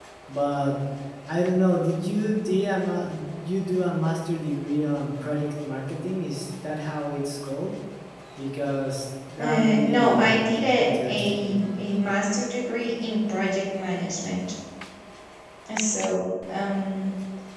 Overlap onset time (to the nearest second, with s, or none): 9 s